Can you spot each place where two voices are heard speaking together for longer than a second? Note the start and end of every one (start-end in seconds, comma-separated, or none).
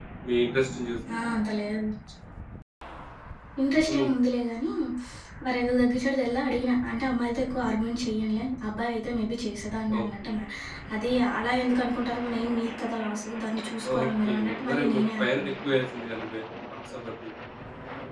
14.0-15.5